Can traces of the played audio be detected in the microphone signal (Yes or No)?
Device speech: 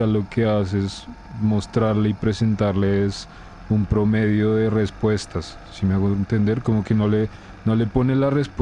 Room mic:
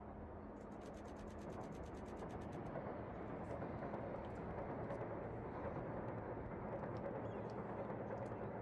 No